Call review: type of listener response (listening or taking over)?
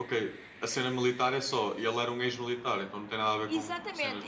taking over